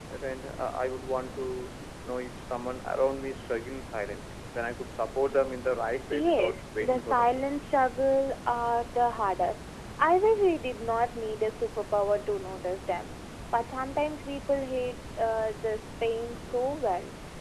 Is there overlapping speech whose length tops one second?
Yes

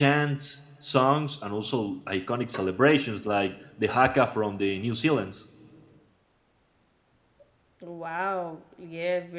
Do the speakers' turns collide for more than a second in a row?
No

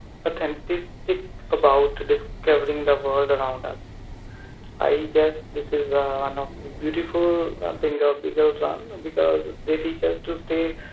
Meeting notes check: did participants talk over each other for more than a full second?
No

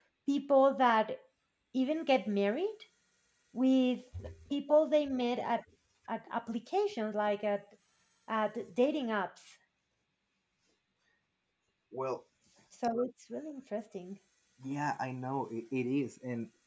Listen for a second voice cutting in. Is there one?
No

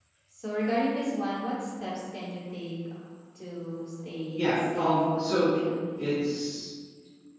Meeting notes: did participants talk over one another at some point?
Yes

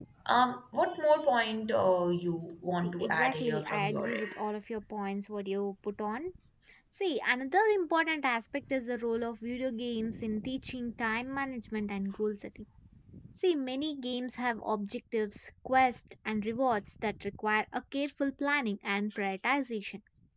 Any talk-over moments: Yes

